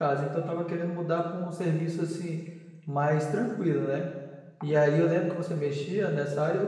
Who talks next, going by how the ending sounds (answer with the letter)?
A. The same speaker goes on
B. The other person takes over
A